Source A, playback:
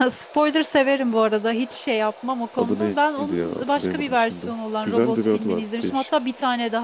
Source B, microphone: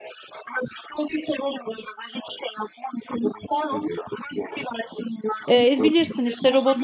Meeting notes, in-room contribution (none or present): present